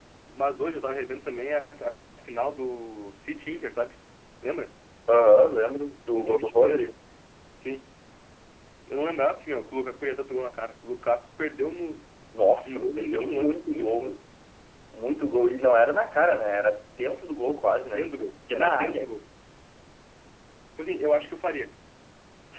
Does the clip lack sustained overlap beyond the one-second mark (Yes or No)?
No